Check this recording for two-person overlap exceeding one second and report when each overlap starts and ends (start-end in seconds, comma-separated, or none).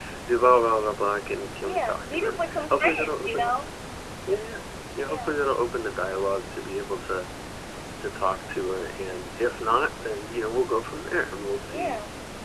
1.6-3.5